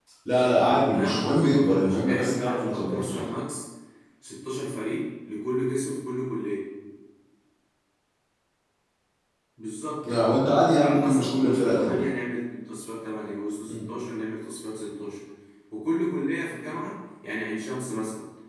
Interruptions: present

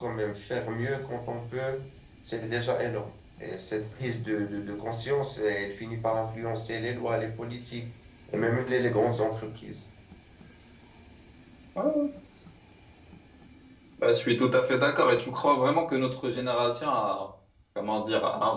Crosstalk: none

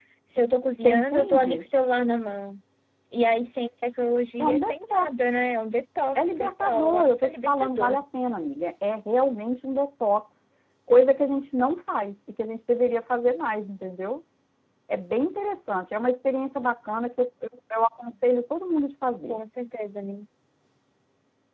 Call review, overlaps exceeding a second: present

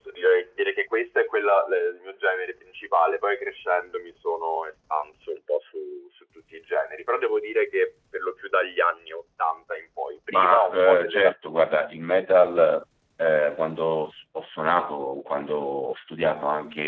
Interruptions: present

